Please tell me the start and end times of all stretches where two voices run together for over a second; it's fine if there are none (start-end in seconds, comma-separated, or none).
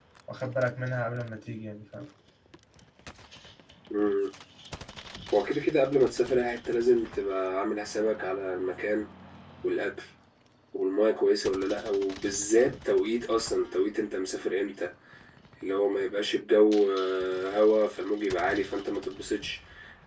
none